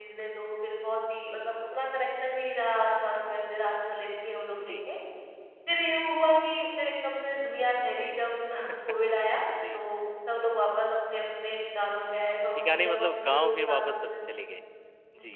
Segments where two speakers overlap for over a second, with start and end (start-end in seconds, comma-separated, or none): 12.6-14.2